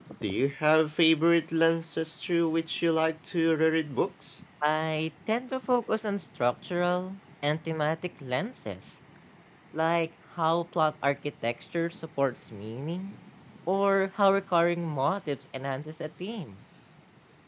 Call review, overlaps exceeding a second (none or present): none